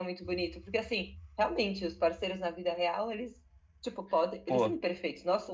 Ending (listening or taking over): listening